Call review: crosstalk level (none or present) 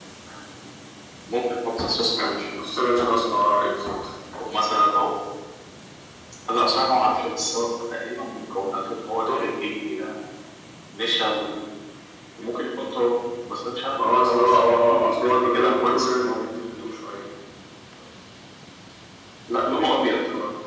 present